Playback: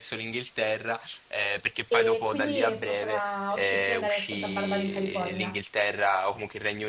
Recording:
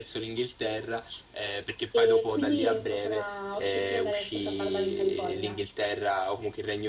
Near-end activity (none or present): none